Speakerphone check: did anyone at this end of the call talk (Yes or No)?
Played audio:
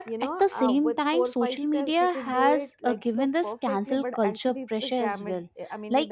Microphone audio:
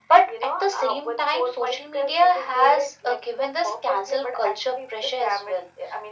No